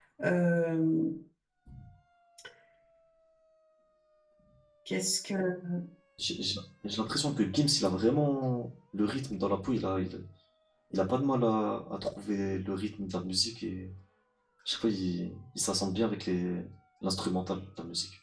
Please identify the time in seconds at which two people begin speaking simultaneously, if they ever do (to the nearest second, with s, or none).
none